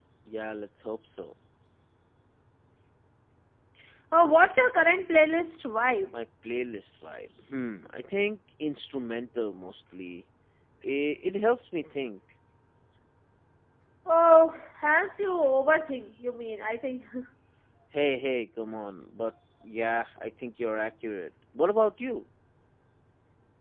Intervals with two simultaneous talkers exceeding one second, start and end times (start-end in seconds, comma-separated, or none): none